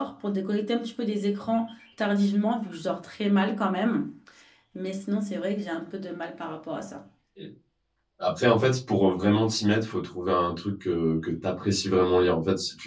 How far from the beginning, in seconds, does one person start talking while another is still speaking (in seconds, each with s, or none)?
none